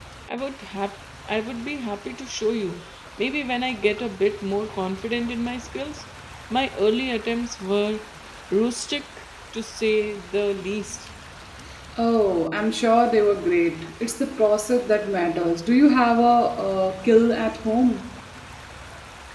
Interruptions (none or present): none